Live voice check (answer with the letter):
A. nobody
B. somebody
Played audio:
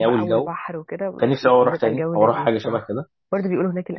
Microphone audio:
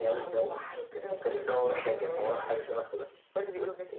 B